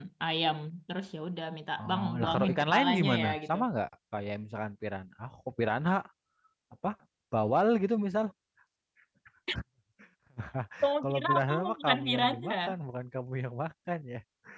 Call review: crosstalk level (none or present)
present